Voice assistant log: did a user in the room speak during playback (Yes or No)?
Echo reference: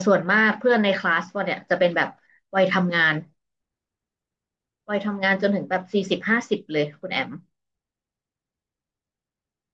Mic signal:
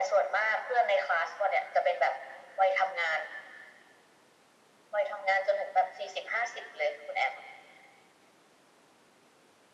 No